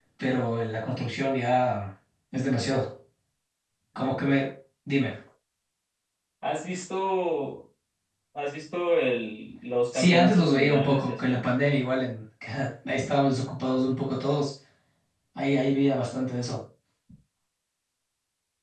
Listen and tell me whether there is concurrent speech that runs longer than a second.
Yes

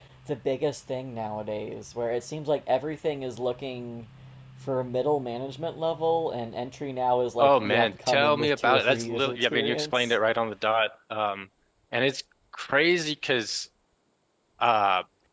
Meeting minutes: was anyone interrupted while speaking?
Yes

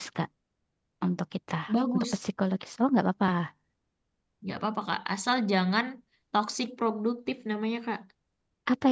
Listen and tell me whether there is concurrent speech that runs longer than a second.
No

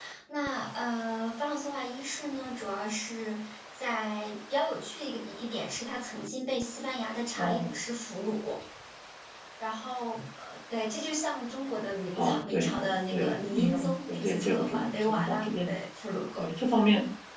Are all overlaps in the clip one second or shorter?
No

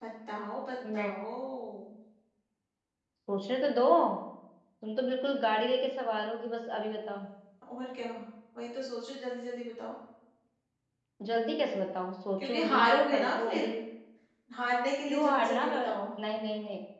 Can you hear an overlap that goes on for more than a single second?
Yes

